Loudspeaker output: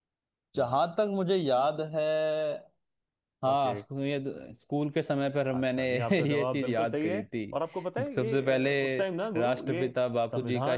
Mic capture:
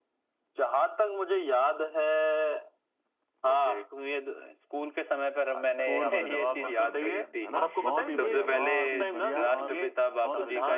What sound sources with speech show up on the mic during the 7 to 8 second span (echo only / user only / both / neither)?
both